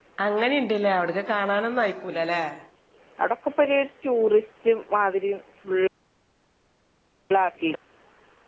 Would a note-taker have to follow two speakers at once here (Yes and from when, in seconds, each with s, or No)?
No